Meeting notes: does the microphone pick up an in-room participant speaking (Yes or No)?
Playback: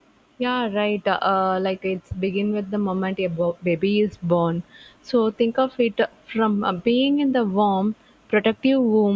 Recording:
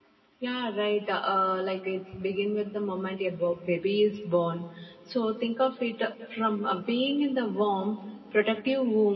No